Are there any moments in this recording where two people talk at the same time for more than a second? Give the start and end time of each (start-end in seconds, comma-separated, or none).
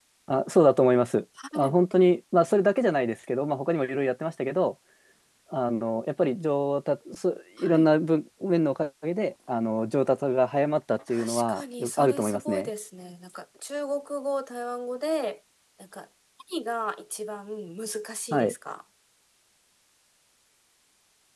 11.1-12.7